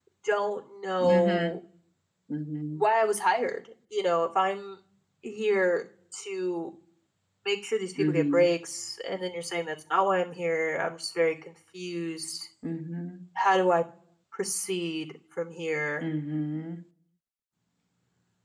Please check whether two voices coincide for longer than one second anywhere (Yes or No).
No